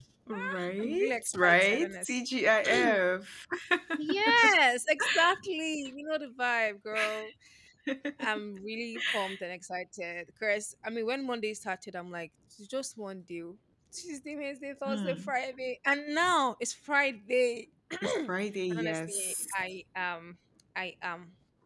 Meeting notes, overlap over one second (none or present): present